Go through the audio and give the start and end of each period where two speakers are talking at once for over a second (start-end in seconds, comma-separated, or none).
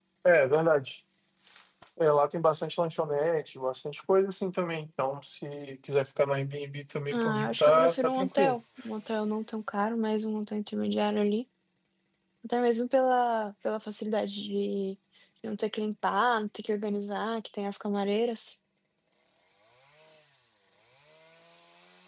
7.1-8.6